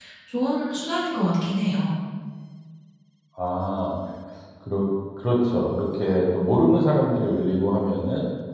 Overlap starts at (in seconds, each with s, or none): none